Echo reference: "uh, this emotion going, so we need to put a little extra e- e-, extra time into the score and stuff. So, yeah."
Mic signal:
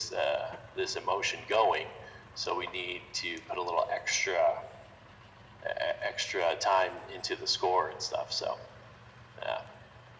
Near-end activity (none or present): none